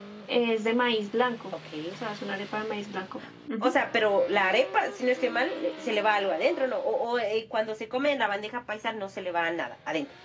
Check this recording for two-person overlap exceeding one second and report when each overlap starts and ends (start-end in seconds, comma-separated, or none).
none